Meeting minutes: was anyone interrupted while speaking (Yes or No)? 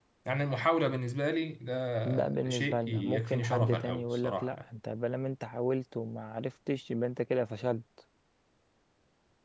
Yes